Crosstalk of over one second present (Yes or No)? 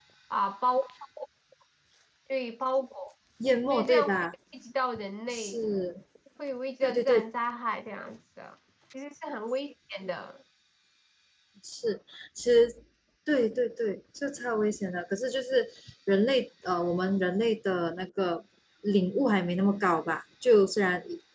No